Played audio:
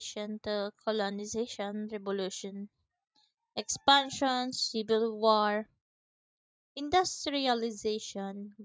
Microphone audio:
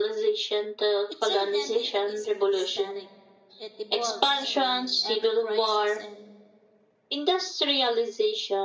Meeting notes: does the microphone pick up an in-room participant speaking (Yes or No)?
Yes